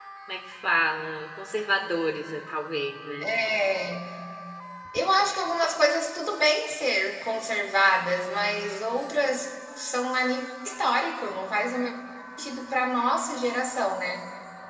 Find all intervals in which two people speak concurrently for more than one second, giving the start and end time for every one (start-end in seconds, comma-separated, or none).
none